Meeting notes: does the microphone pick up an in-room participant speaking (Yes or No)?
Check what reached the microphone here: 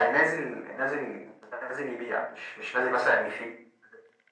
No